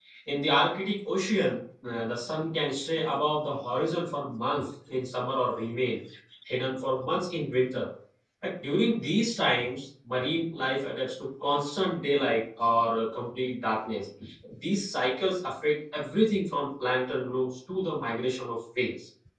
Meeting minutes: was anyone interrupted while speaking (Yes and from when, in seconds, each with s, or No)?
No